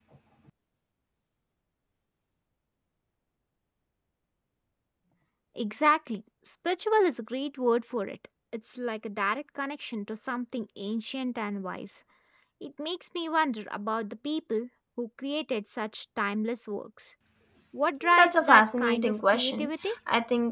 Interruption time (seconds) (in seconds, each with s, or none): 18.1 s